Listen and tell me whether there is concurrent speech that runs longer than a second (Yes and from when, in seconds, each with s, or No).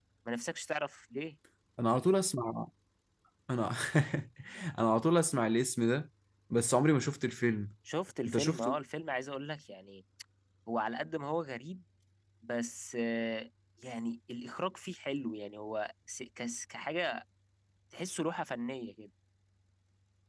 No